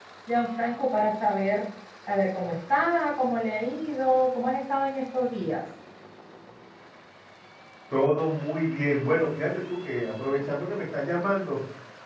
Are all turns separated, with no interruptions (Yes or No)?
Yes